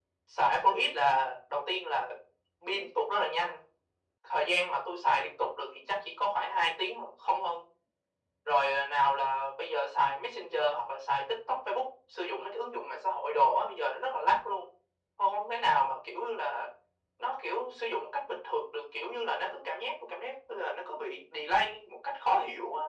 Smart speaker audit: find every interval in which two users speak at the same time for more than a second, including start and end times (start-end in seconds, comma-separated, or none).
none